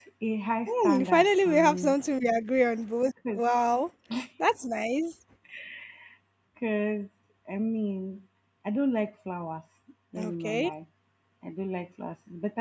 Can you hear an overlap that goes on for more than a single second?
Yes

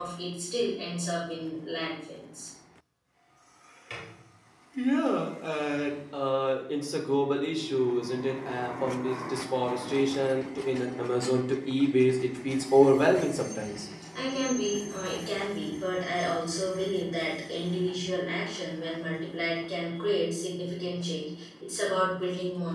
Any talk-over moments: No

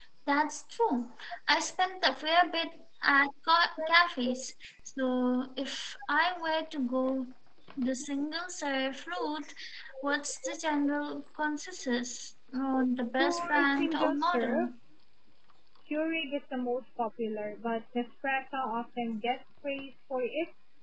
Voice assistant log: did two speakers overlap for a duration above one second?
Yes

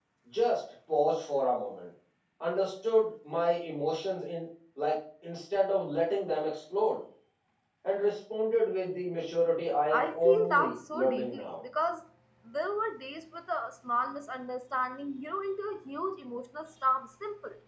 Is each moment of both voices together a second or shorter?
No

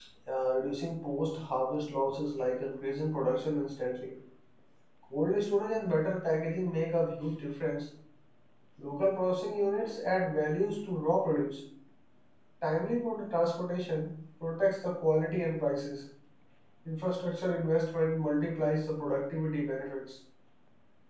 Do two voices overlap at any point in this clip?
No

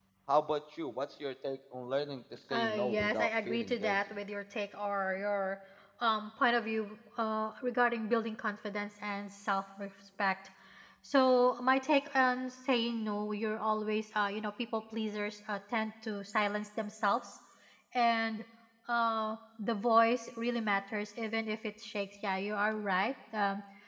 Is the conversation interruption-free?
No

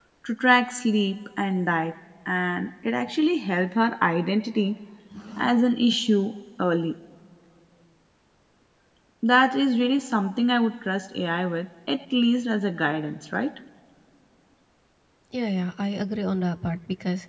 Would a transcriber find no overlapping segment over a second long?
Yes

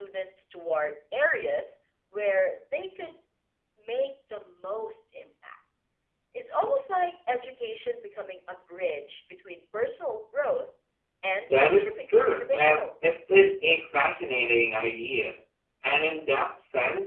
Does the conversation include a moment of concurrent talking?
Yes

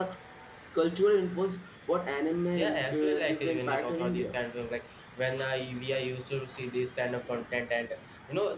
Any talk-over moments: Yes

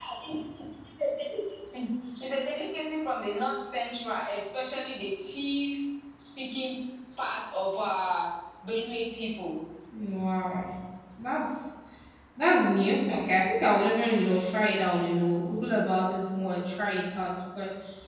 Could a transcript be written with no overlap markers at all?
Yes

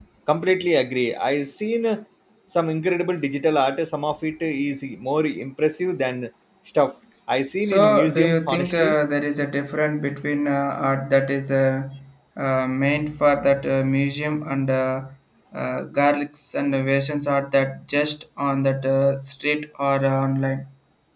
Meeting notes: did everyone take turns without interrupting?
No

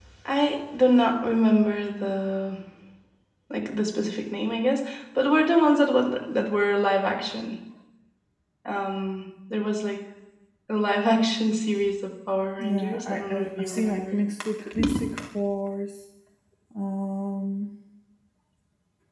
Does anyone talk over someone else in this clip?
Yes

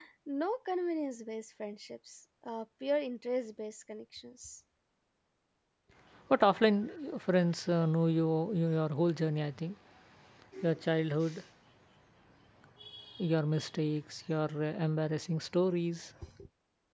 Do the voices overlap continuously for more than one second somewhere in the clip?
No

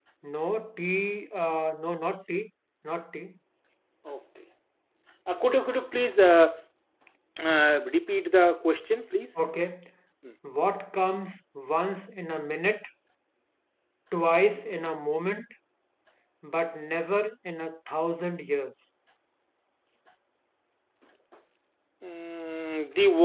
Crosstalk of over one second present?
No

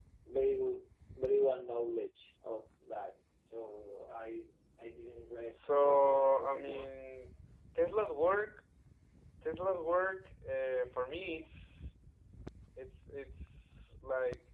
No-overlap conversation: No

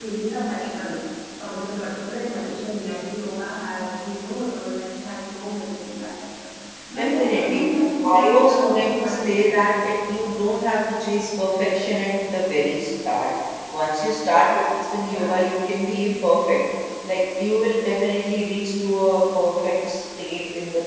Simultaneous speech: Yes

